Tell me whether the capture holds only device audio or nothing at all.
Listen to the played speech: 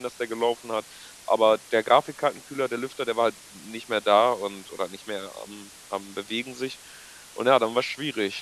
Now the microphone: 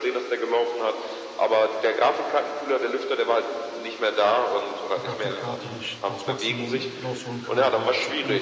No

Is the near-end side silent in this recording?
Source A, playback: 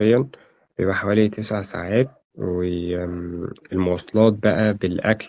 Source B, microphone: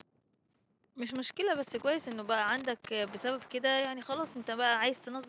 No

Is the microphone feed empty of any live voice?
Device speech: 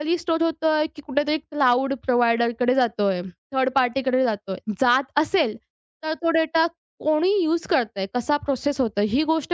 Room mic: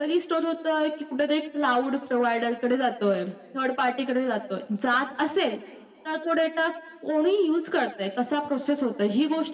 Yes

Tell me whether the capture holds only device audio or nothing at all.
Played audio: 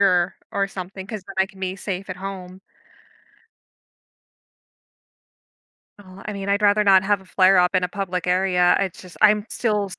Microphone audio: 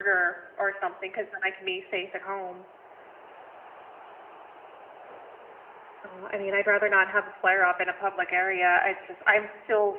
Yes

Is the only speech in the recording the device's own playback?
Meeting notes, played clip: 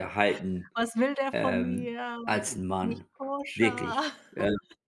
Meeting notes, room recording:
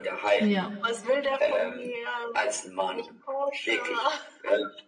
No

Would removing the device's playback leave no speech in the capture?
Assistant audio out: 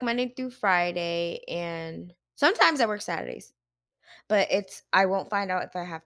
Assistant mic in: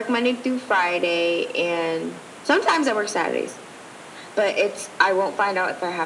Yes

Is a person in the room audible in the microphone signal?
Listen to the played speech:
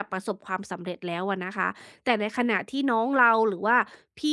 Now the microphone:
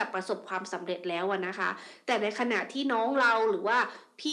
No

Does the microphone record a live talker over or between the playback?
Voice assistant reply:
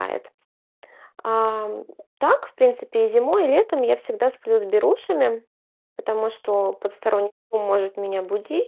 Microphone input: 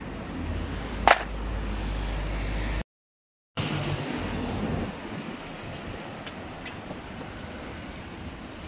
No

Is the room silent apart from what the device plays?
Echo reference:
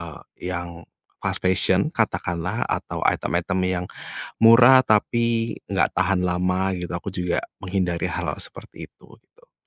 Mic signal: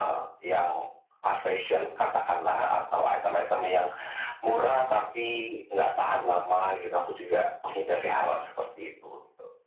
Yes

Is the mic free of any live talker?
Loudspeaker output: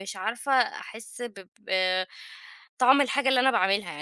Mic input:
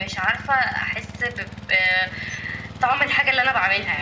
Yes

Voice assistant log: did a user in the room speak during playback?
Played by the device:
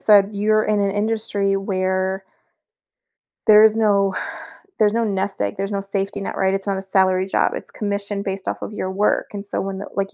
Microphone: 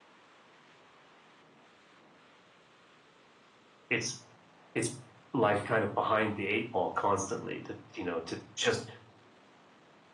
Yes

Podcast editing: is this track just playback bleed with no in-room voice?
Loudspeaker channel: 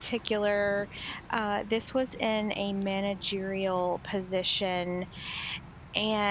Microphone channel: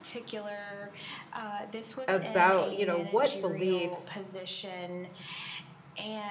No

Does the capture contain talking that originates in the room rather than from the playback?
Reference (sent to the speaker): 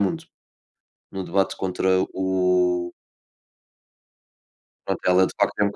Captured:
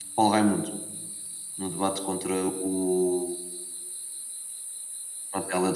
No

